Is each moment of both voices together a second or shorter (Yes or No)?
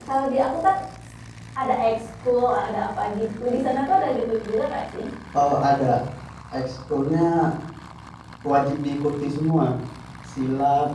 Yes